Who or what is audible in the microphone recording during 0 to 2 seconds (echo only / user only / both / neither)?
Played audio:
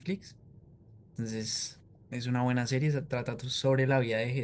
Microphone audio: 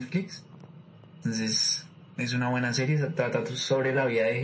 echo only